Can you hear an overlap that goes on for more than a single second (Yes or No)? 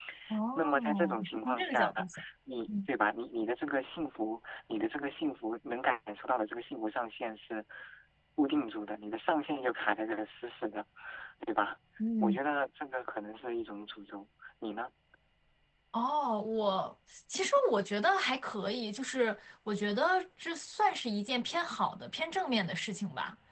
Yes